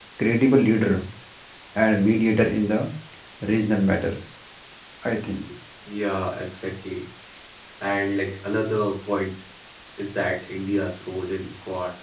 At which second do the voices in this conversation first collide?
none

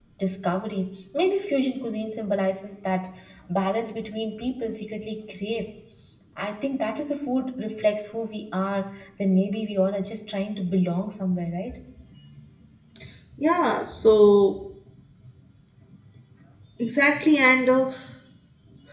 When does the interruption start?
none

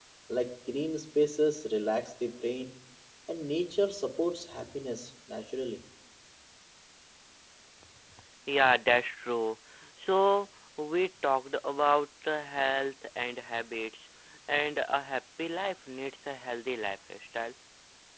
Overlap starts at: none

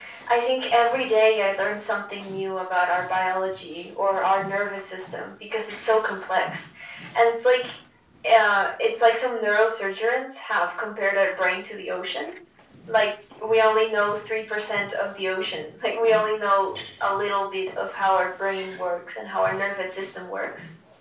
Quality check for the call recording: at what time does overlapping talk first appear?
none

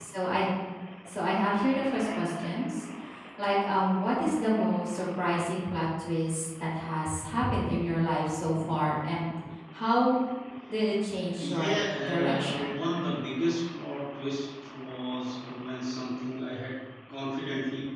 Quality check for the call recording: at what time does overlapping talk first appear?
11.4 s

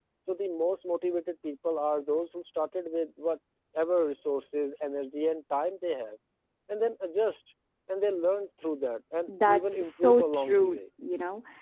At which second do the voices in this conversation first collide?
9.3 s

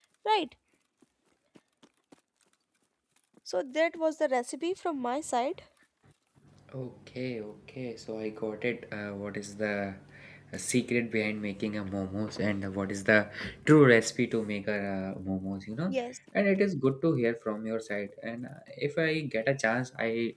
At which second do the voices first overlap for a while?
none

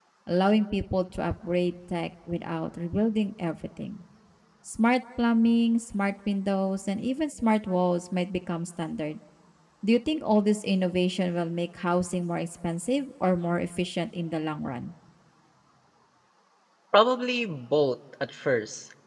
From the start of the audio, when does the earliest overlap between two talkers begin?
none

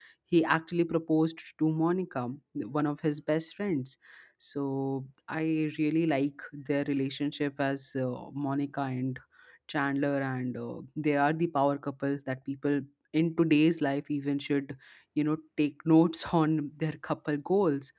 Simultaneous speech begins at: none

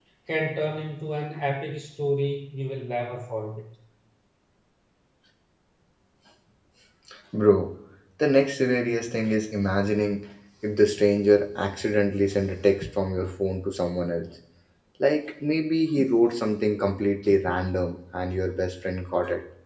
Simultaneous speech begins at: none

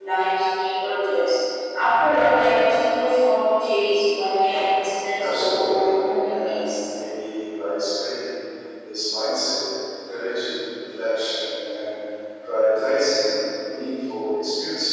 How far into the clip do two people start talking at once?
5.2 s

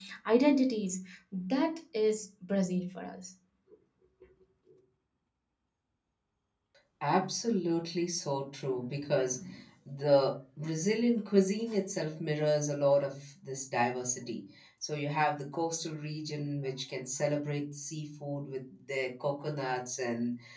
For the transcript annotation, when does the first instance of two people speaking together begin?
none

